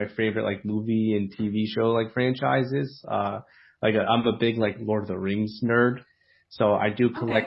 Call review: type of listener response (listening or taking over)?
listening